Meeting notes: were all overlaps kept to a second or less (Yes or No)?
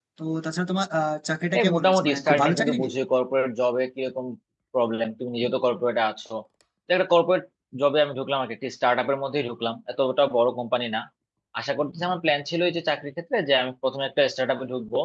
No